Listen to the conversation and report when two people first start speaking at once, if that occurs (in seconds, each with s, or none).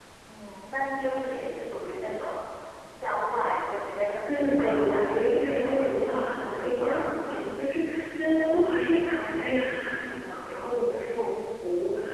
4.3 s